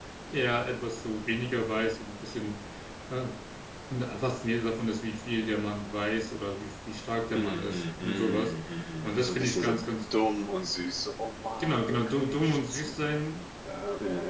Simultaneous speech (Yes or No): Yes